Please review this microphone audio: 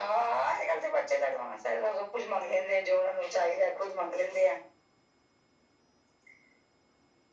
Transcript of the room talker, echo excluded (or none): none